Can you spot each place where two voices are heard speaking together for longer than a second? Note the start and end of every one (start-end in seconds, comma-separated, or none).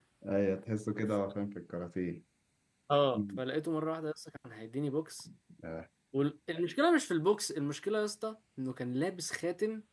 none